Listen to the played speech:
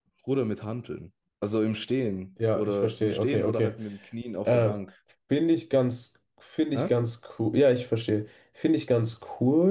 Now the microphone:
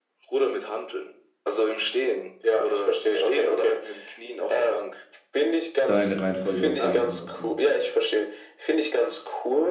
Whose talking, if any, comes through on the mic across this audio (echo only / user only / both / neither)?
both